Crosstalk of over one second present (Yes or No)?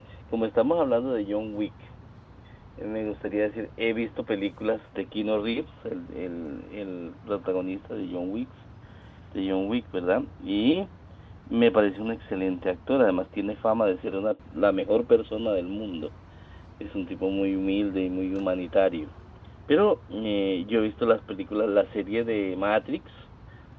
No